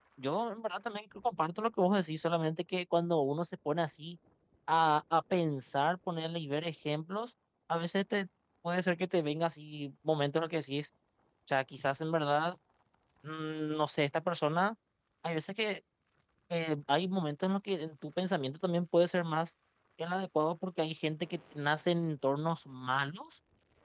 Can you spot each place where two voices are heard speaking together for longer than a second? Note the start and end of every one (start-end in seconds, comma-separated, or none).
none